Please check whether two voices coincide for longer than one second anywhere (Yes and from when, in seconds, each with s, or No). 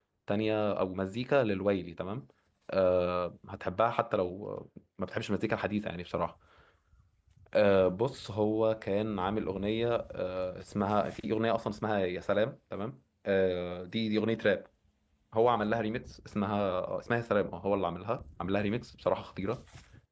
No